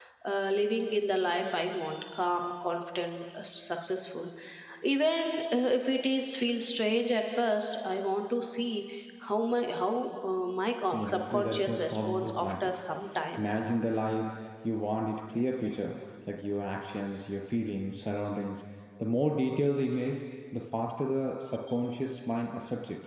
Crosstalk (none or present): present